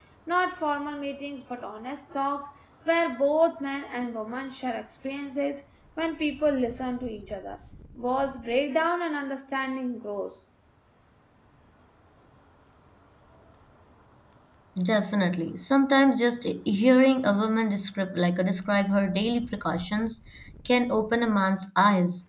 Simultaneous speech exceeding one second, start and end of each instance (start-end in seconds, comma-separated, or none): none